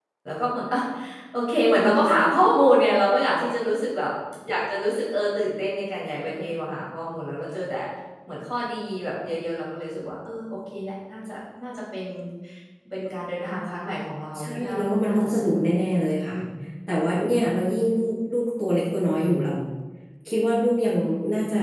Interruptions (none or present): present